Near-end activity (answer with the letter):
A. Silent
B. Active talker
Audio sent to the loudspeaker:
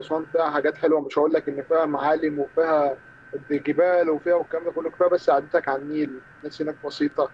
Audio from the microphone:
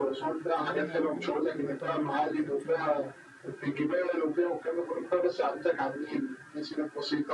B